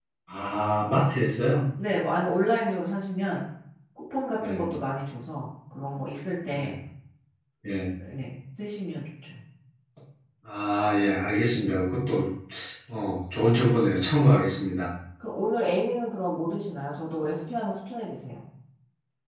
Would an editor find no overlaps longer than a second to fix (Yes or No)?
Yes